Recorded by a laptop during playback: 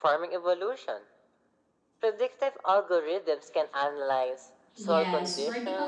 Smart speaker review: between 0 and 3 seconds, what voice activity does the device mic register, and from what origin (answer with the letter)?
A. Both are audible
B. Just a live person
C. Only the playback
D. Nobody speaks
C